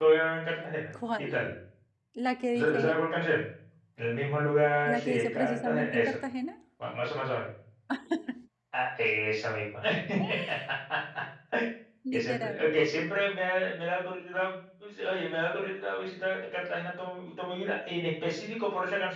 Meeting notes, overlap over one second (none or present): present